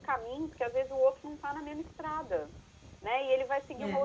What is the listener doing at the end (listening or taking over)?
listening